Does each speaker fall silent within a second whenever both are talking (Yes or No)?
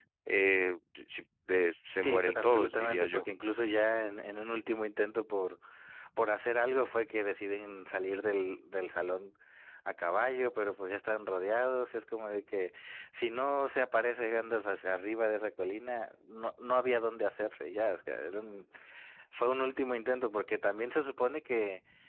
No